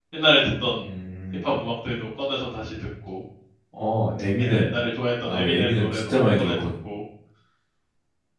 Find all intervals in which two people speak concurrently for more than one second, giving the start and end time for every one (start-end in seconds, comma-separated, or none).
5.2-6.7